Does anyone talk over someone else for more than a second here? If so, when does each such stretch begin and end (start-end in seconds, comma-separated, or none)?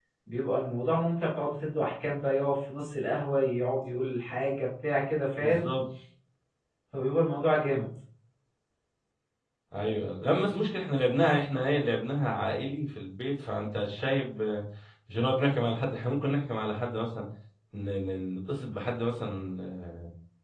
none